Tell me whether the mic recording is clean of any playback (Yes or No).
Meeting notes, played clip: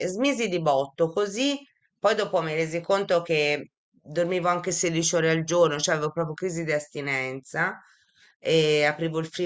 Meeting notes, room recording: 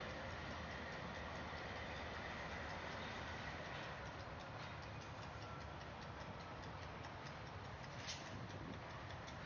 Yes